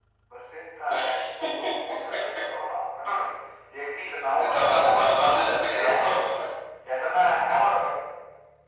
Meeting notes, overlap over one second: present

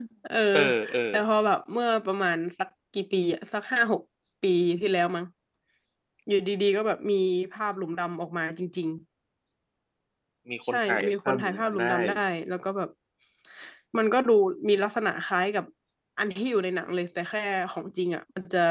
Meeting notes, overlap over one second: present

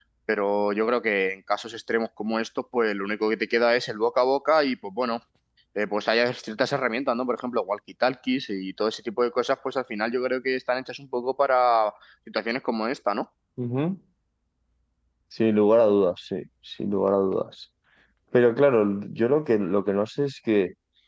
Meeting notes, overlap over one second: none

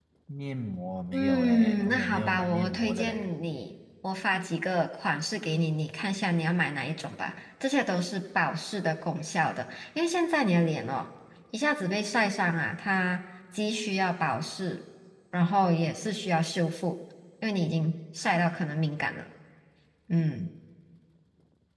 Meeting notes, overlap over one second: present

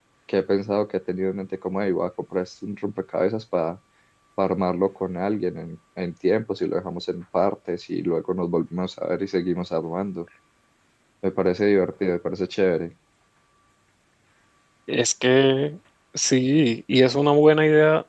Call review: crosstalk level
none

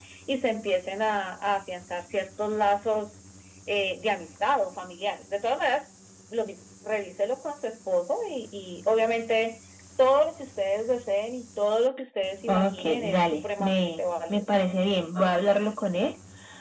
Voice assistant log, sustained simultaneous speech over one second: present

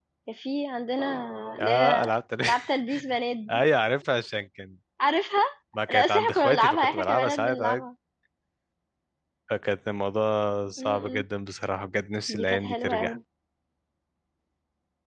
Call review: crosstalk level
present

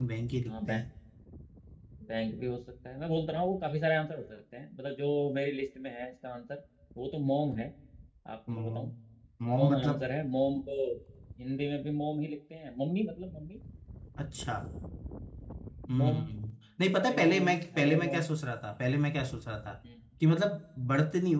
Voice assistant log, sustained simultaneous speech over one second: present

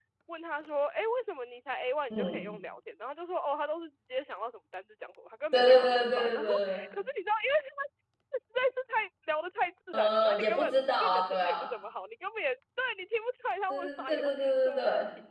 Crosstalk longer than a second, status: present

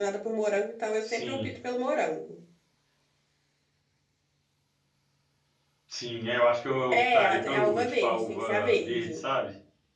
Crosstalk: present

